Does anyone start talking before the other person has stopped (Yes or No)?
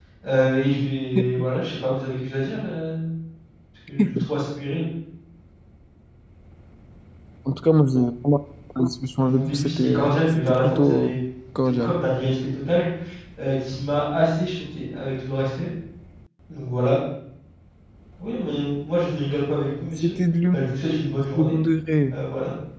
Yes